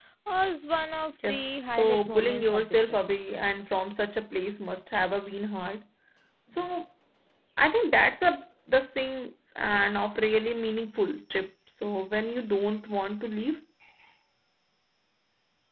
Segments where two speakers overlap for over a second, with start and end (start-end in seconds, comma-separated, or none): 1.2-3.0